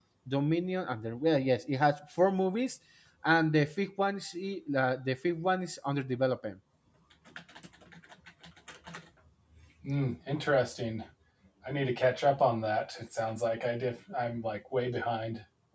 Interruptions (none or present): none